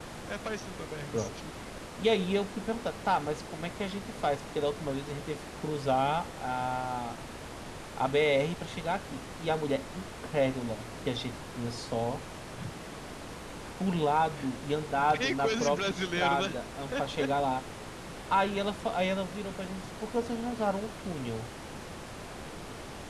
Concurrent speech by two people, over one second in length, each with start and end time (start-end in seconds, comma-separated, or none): 15.2-16.5